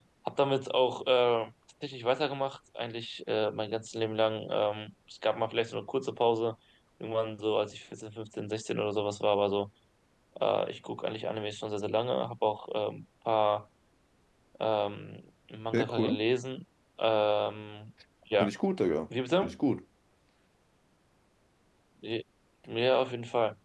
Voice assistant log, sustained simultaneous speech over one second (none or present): none